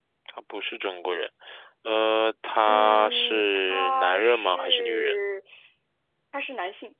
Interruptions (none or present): present